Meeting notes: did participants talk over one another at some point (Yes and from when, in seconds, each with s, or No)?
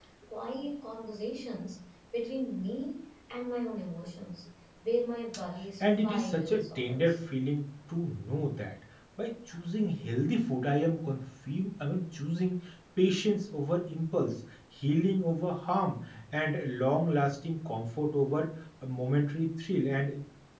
Yes, from 5.8 s